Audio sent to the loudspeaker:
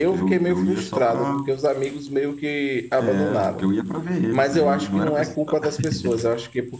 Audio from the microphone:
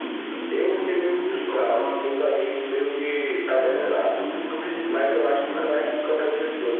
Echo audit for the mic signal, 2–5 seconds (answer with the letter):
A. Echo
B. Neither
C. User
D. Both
A